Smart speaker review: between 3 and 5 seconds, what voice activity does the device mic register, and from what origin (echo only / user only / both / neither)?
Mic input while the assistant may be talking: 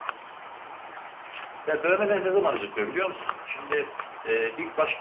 echo only